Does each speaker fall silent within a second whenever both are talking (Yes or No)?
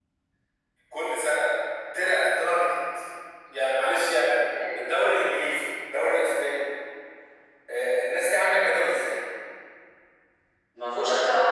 Yes